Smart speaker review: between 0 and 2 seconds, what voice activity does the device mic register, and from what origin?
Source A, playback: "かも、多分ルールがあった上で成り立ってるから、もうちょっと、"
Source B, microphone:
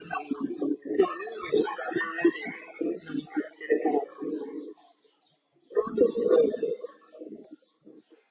echo only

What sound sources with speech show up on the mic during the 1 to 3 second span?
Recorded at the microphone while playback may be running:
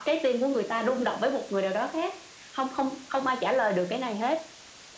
echo only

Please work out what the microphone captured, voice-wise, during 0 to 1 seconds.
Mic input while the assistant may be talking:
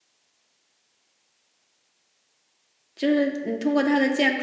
neither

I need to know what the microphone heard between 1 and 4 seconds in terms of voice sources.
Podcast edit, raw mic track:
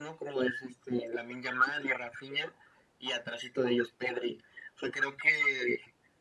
echo only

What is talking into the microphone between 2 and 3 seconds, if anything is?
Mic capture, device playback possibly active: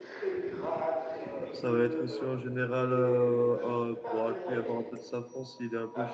both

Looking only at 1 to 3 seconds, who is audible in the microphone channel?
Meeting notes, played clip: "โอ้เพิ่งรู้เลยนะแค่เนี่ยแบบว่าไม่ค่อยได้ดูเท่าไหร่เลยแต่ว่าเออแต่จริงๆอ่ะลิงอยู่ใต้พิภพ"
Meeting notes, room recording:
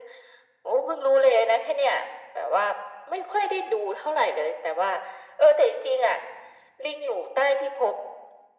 echo only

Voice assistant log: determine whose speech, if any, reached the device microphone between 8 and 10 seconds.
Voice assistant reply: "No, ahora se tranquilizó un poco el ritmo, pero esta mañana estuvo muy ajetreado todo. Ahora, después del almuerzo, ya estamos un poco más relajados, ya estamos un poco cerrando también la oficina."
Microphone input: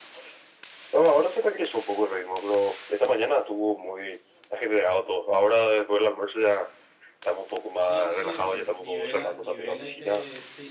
both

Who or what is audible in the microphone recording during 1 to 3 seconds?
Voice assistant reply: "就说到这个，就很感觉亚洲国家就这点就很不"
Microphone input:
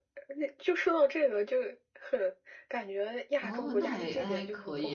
echo only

